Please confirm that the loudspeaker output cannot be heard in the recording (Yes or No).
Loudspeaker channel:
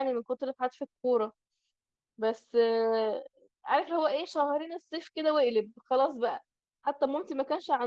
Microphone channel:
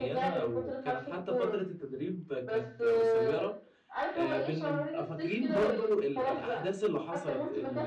No